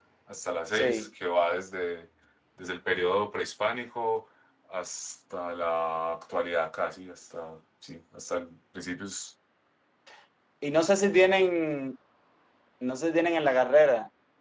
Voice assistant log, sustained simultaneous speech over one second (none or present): none